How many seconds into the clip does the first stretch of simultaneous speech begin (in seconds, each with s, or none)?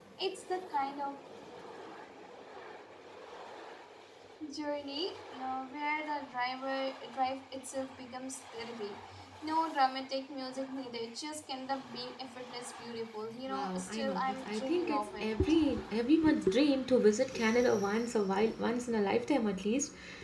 13.5 s